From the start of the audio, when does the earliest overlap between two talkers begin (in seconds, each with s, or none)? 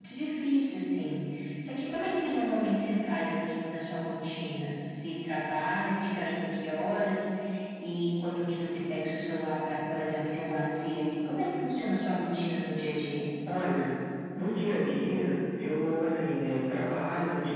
none